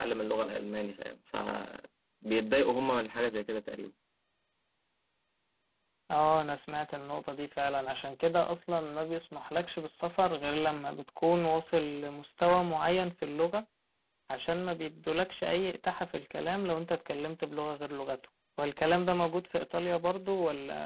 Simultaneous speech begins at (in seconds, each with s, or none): none